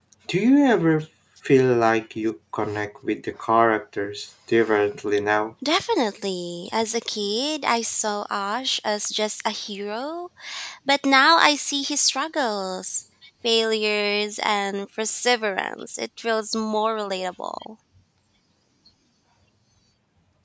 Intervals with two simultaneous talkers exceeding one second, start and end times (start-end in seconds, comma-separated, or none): none